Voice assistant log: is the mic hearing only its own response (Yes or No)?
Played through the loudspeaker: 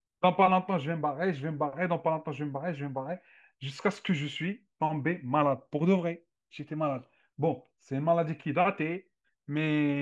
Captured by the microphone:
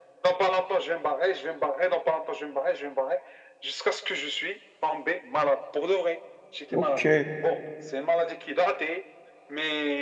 No